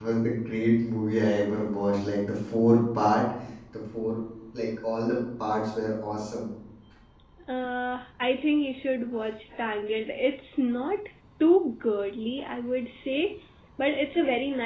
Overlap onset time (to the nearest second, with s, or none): none